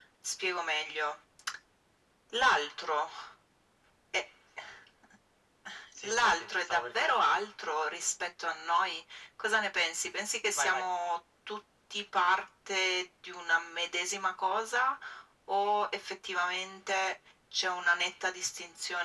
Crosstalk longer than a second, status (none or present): present